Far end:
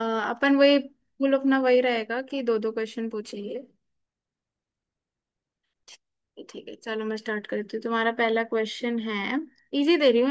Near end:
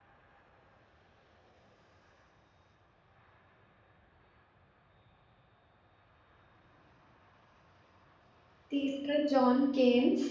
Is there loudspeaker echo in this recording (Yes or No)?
No